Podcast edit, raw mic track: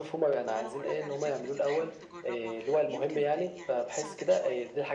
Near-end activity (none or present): present